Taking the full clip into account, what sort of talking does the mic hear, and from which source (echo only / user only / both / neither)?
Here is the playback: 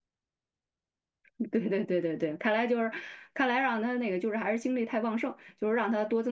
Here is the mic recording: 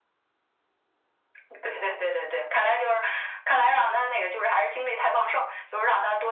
echo only